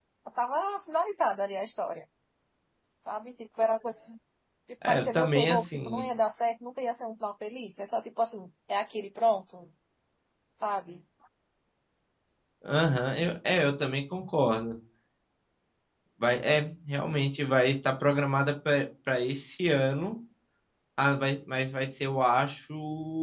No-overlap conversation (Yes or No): No